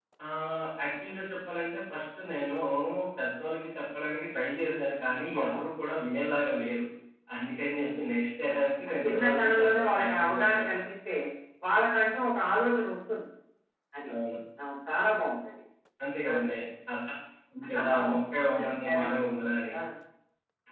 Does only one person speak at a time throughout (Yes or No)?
No